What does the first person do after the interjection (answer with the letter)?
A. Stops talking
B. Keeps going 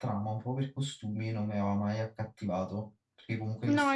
A